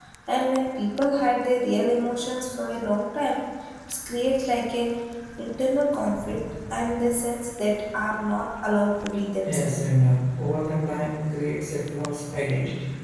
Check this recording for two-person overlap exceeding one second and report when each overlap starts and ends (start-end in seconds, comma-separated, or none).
none